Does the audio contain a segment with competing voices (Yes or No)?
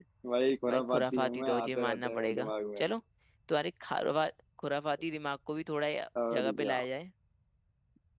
Yes